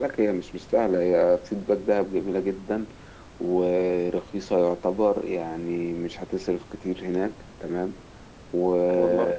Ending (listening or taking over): listening